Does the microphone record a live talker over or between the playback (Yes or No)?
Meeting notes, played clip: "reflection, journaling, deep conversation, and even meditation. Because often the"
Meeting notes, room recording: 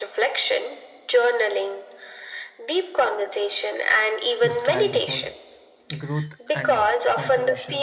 Yes